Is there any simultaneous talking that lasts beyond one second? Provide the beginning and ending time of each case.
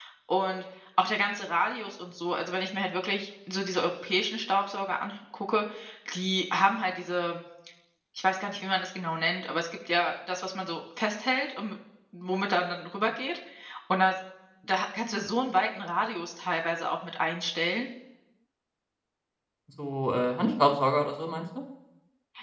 none

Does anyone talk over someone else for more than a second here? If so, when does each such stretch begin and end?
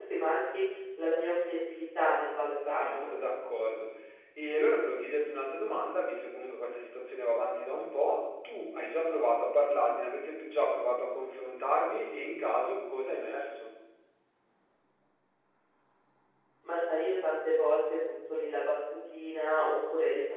none

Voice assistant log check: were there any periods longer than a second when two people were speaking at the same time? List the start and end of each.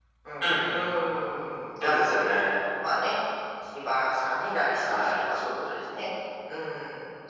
none

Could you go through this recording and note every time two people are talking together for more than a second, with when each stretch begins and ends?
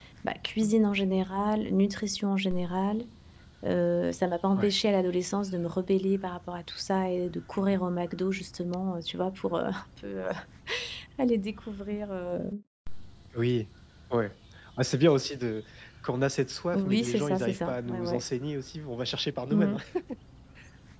16.7-18.2

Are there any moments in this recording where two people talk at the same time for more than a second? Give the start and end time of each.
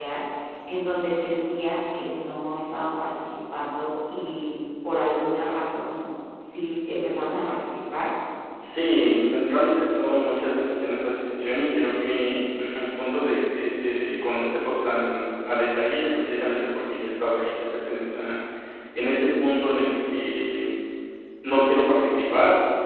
none

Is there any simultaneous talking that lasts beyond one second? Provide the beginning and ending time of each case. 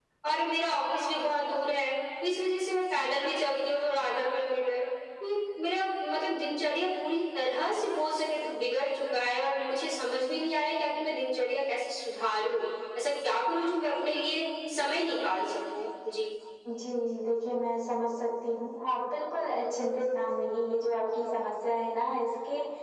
none

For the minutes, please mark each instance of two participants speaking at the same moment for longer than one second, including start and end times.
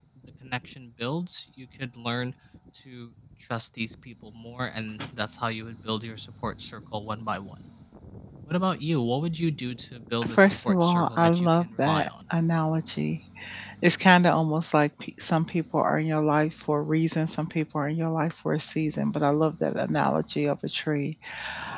10.3-12.1

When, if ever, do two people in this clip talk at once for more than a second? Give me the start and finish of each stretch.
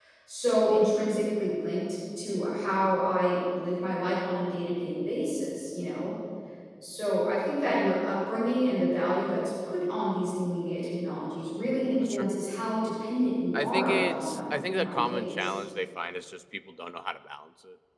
13.5-15.5

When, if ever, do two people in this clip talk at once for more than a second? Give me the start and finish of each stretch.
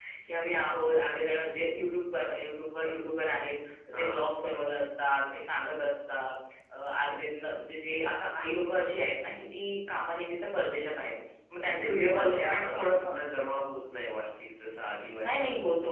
11.6-13.1

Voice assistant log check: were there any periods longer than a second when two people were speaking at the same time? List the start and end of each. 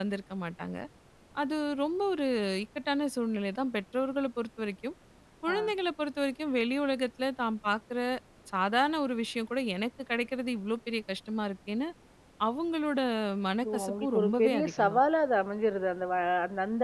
13.6-15.0

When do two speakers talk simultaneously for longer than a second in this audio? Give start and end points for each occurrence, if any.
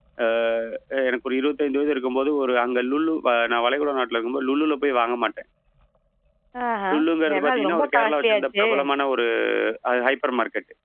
7.3-8.7

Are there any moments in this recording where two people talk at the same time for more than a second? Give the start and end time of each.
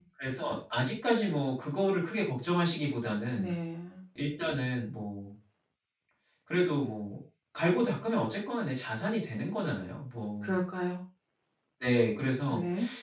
none

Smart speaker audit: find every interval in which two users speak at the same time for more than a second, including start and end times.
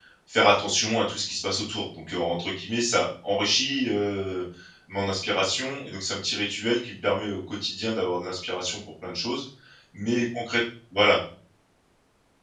none

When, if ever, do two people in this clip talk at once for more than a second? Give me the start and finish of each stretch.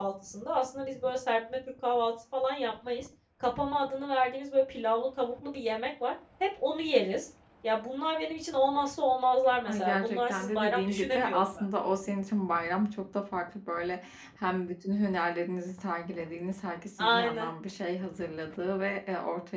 9.7-11.4

